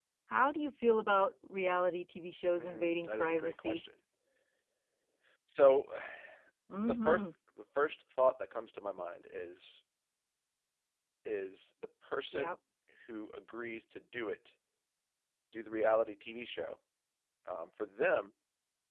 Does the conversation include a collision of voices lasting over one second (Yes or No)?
Yes